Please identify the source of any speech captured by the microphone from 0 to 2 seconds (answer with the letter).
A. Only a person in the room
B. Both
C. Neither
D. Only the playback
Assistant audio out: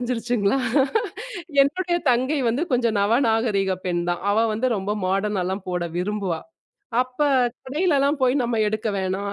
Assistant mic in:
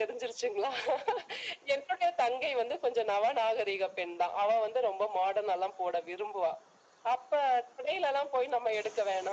D